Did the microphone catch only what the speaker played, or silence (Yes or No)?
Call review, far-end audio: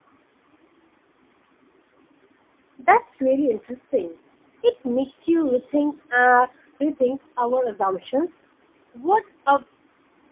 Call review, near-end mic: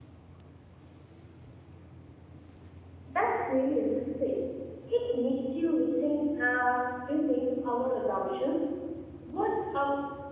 Yes